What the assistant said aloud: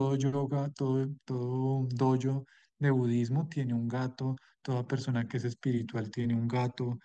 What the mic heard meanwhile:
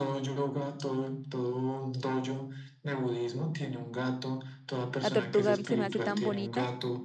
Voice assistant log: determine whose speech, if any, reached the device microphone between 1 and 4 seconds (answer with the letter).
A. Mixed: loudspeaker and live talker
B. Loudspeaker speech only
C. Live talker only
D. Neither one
B